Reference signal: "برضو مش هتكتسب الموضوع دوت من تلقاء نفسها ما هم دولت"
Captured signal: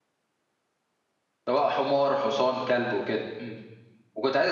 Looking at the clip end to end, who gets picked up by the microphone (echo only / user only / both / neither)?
user only